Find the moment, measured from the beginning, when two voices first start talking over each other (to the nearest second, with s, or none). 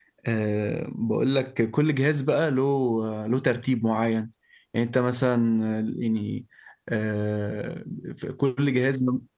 none